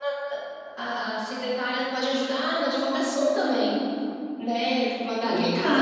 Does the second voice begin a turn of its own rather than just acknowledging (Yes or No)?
No